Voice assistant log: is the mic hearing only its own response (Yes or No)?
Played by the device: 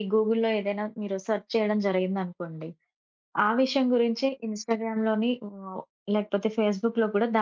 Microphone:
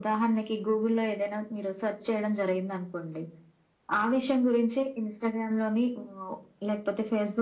Yes